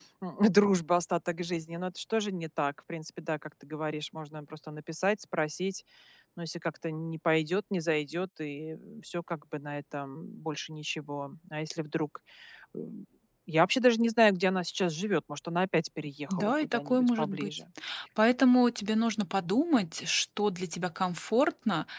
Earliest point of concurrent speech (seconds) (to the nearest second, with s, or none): 16 s